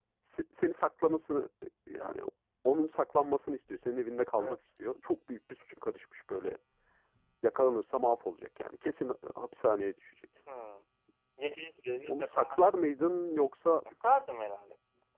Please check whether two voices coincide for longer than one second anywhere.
No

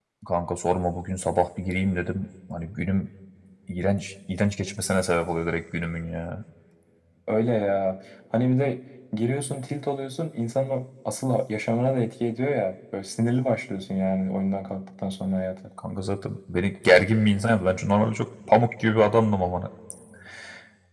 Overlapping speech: No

